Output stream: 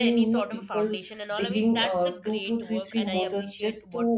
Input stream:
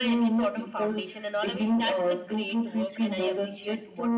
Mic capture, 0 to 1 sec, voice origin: echo only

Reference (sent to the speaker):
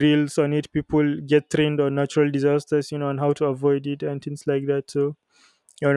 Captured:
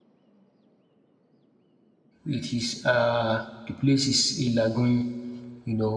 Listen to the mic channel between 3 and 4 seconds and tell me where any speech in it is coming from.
user only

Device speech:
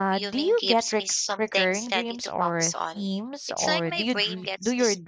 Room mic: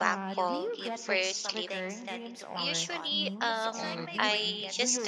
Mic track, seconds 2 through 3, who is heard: both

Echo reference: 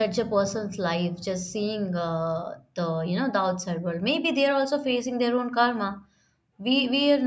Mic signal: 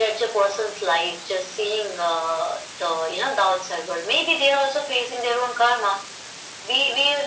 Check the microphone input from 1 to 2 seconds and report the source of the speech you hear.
echo only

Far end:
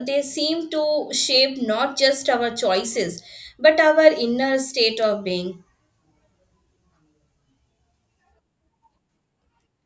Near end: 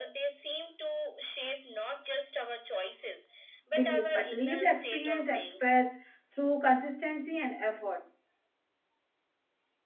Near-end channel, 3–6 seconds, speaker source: both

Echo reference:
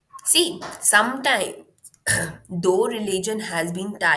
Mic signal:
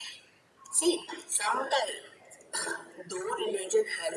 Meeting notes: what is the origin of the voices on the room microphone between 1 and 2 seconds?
echo only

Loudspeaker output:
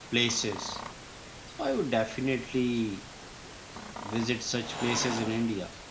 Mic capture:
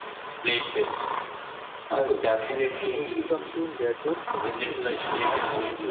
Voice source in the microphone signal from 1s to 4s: both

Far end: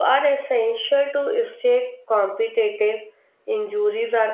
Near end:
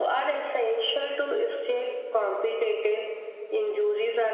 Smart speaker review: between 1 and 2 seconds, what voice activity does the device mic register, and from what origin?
echo only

